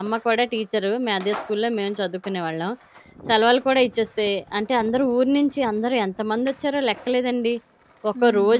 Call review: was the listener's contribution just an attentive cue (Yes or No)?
Yes